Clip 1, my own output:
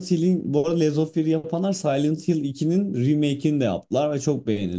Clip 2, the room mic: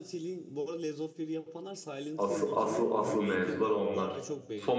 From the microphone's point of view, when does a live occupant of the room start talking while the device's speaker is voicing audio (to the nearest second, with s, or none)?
2 s